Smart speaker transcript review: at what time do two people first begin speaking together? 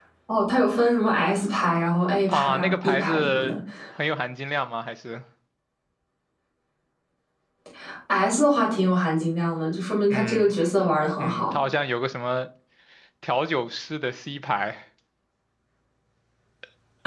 2.3 s

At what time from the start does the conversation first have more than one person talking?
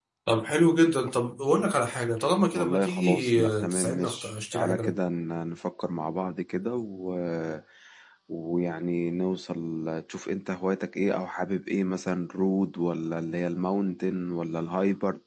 2.5 s

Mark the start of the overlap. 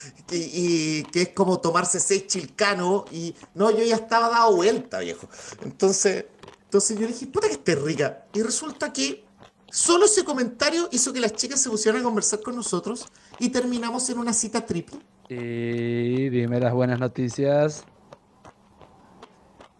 none

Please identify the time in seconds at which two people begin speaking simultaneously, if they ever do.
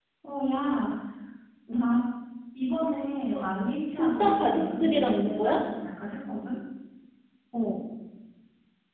3.9 s

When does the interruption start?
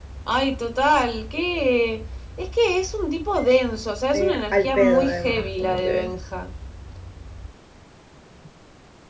4.1 s

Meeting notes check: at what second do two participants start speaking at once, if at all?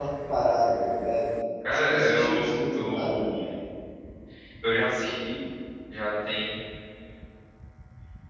1.7 s

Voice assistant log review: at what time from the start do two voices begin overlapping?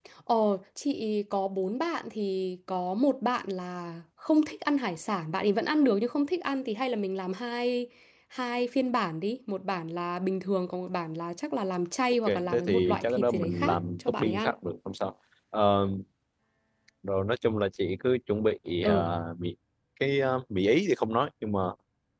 12.2 s

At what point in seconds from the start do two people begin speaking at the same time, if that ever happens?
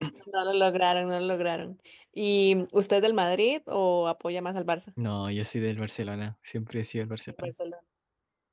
none

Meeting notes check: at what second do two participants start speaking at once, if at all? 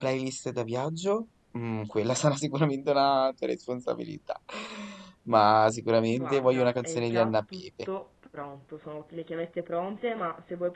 6.1 s

